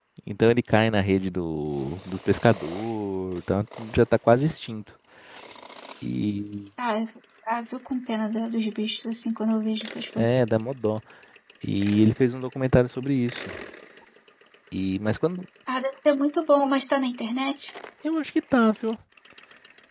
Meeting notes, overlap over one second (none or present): none